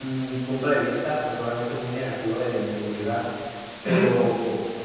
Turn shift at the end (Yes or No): No